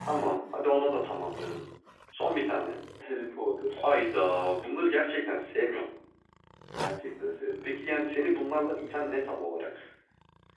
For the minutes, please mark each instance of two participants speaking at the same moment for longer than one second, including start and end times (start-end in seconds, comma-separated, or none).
none